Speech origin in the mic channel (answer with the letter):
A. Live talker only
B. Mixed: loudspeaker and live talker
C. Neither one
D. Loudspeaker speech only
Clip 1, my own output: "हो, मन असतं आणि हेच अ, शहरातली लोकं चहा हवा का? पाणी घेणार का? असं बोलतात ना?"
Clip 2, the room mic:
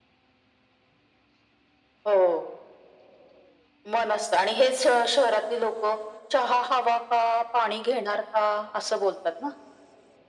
D